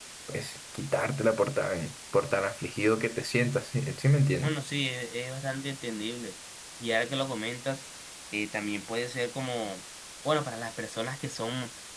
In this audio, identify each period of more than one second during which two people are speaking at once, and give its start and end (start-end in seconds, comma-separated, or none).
none